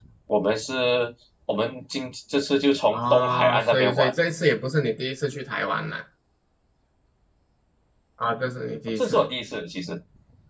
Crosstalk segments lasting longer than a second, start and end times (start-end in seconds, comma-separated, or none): 2.9-4.1